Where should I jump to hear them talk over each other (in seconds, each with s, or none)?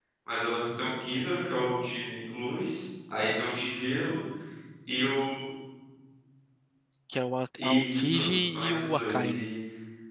7.5 s